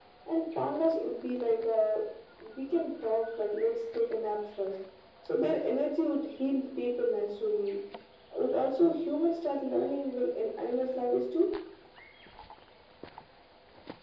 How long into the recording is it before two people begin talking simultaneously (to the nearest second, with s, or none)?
none